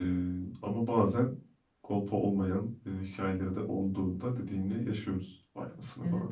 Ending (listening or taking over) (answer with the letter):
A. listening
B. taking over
B